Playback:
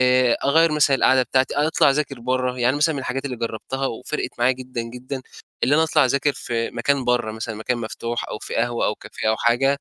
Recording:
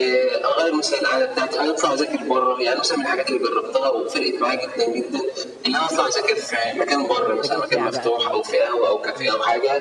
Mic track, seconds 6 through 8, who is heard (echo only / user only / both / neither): both